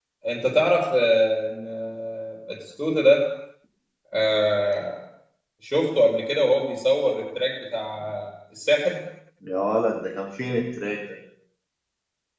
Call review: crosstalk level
none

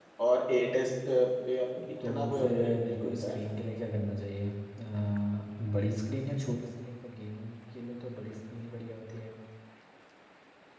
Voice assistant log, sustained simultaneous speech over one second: present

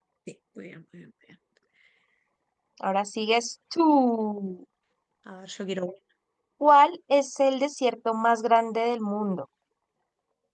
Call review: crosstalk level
none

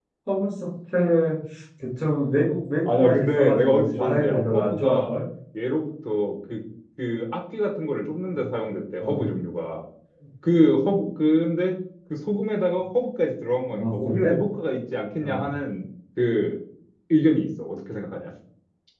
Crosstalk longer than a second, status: present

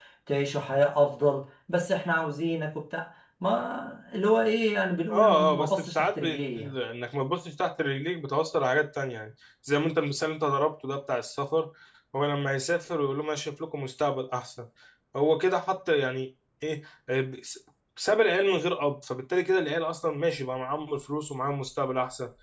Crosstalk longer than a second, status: present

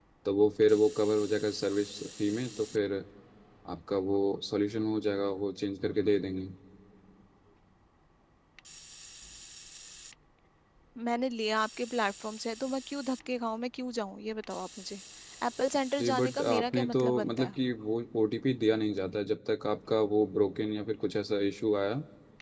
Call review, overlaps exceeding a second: present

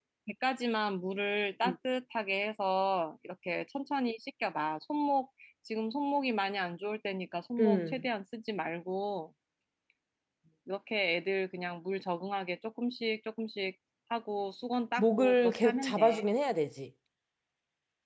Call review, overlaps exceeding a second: present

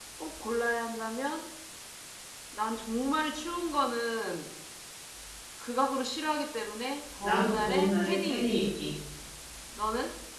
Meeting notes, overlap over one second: present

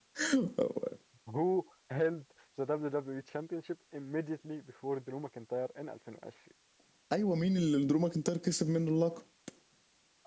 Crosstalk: none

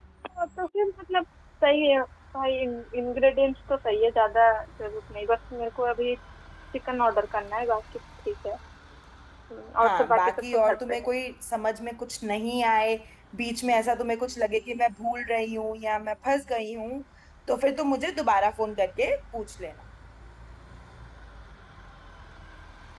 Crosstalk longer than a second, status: present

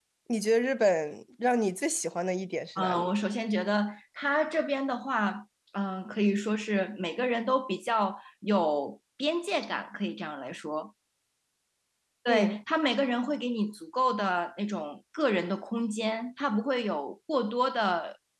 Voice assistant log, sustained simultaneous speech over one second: none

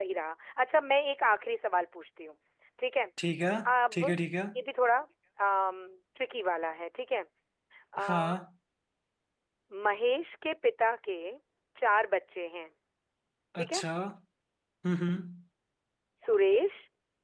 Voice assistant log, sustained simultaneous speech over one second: none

